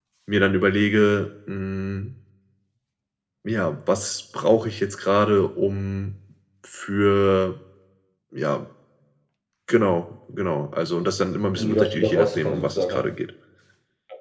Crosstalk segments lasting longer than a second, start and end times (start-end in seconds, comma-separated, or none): 11.6-13.0